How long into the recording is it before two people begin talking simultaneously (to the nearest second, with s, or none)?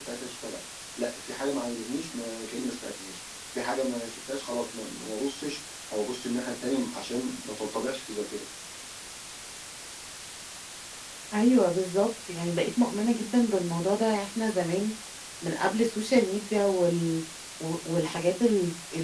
none